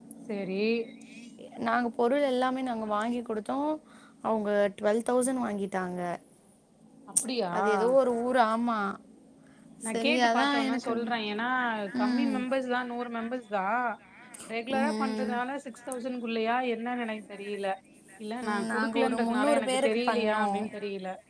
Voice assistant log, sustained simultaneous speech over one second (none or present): present